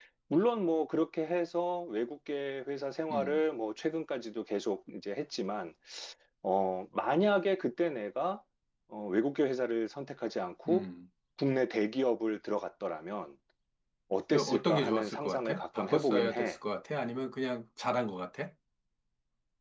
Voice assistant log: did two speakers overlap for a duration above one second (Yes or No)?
Yes